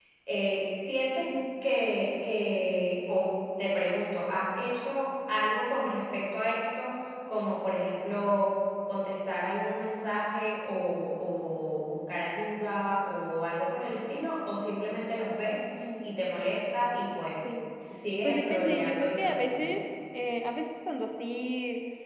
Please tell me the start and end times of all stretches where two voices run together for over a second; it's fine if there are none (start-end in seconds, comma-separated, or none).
18.2-19.7